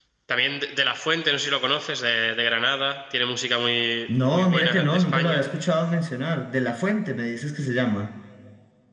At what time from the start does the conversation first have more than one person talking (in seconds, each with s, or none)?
4.1 s